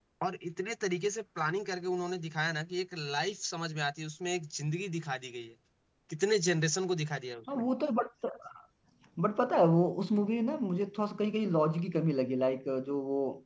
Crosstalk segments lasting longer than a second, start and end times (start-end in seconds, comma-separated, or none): none